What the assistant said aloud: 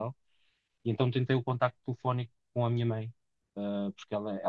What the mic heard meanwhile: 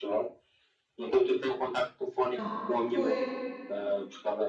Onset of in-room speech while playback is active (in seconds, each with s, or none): 2.2 s